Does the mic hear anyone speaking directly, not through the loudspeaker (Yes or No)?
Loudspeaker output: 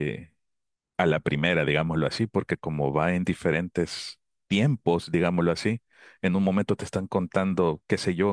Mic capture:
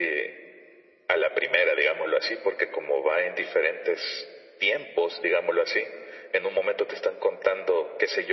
No